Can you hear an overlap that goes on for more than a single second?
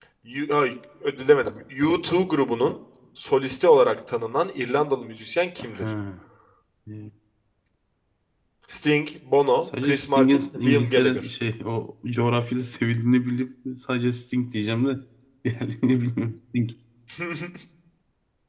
Yes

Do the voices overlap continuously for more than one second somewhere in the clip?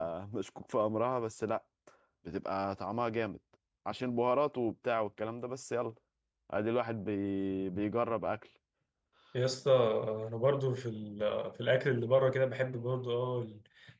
No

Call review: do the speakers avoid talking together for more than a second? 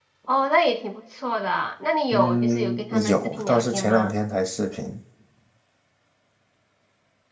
No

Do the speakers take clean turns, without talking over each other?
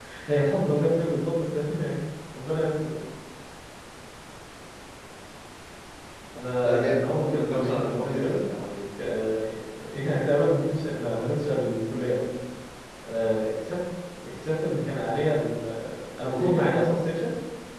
No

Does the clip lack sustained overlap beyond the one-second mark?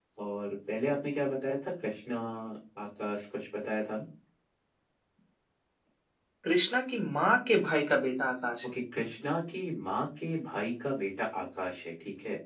Yes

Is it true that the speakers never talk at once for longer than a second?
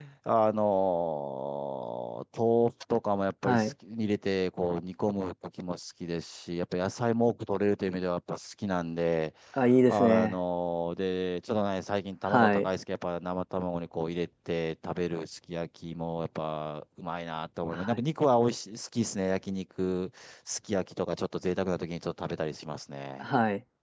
Yes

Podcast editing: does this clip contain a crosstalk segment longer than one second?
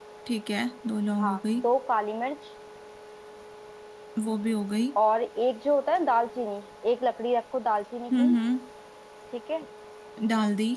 No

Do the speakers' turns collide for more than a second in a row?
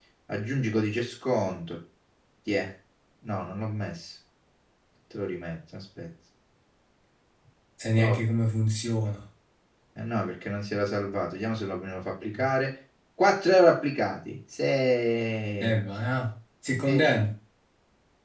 No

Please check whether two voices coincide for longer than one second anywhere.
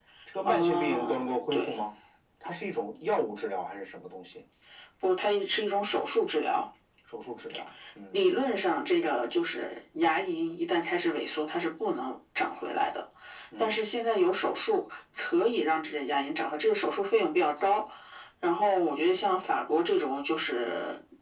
Yes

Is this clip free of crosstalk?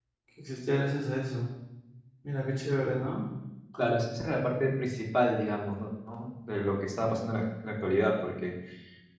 Yes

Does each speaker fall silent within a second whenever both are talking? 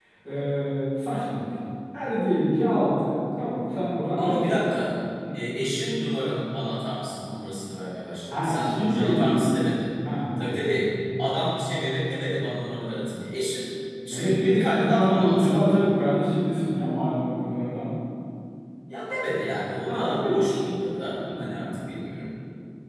No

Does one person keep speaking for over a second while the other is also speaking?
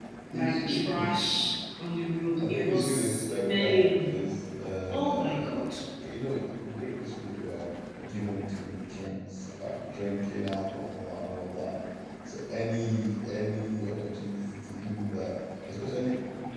Yes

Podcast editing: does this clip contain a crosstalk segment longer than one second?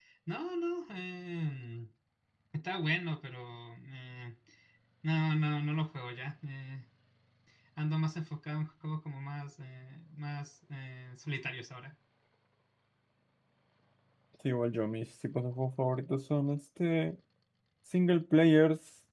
No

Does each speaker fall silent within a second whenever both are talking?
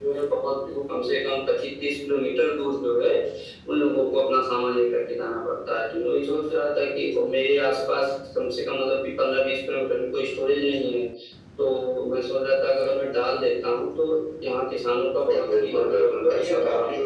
No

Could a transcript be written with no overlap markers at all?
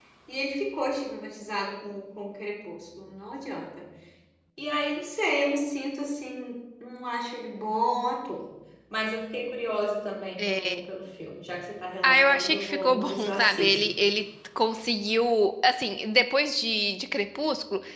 No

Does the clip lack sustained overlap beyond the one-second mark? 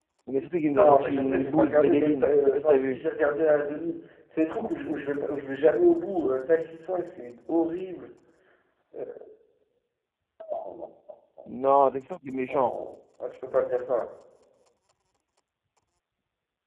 No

